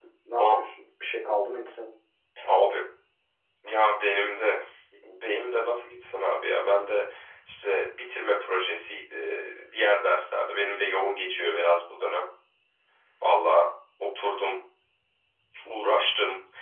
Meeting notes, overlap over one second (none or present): none